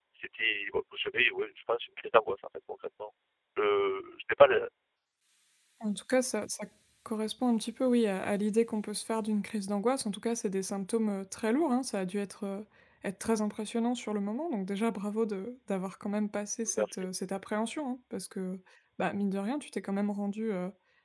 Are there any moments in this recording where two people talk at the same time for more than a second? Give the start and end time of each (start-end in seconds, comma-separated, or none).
none